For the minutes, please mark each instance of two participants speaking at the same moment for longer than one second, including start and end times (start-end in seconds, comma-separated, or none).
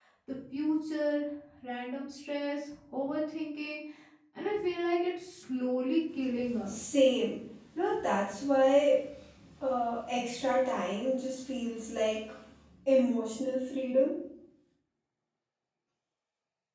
none